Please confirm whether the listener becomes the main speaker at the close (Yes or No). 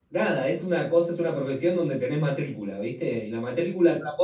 No